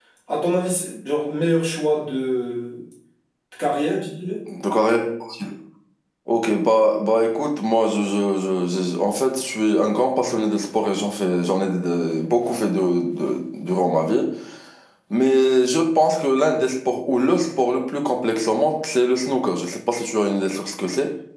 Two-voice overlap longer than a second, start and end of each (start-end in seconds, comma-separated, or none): none